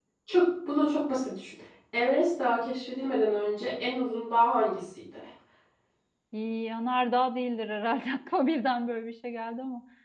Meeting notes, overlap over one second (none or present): none